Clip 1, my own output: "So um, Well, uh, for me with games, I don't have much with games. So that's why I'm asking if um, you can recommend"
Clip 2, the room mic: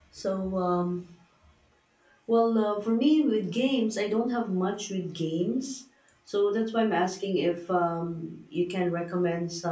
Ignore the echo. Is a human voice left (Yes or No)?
No